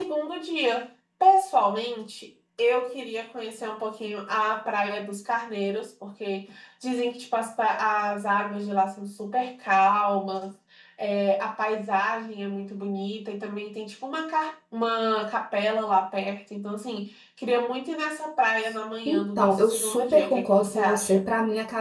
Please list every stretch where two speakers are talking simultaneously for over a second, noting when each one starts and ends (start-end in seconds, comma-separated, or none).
19.1-21.2